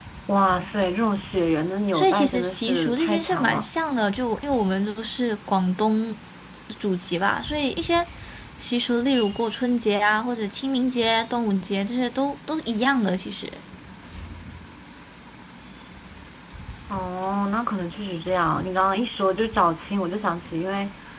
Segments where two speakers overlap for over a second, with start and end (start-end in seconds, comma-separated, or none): 1.9-3.7